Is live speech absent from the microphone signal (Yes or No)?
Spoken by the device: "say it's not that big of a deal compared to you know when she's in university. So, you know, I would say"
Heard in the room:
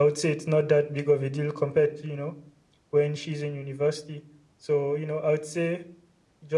Yes